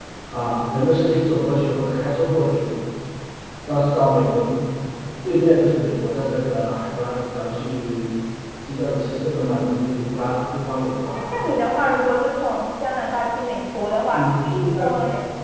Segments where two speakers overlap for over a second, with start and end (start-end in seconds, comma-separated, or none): none